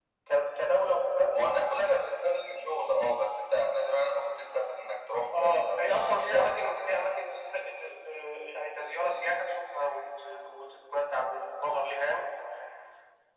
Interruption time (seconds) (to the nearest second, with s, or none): 5 s